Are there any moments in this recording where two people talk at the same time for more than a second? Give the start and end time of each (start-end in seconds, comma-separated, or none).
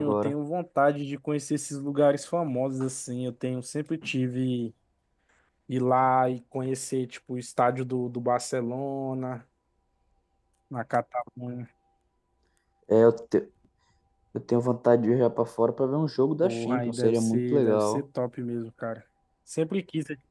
16.4-18.0